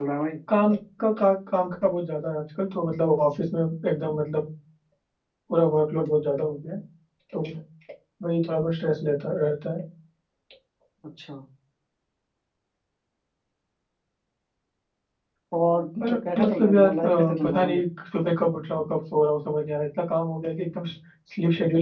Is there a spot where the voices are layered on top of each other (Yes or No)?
Yes